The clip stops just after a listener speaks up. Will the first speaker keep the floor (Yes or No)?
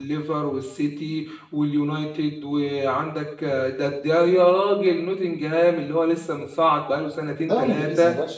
No